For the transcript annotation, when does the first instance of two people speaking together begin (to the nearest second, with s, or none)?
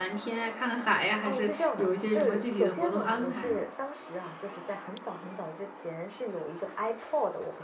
1 s